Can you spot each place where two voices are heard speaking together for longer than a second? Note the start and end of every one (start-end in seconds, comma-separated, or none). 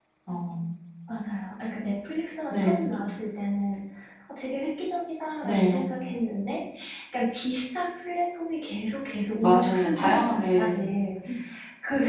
9.4-10.8